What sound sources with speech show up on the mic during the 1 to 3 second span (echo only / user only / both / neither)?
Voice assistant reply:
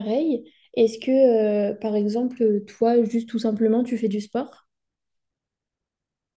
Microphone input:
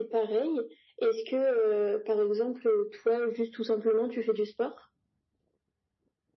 echo only